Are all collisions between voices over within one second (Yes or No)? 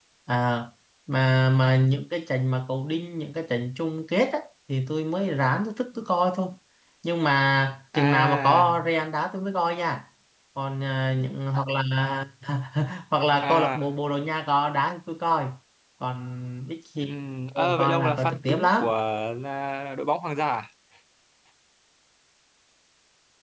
No